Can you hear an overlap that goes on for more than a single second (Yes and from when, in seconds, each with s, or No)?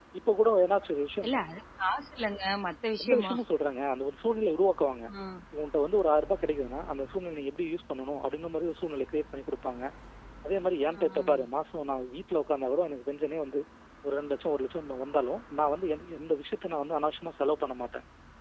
No